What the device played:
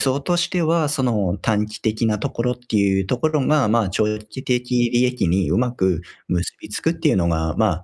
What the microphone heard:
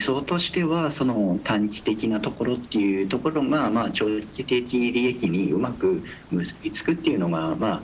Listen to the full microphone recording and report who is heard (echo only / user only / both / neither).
echo only